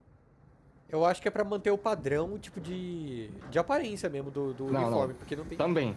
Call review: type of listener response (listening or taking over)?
taking over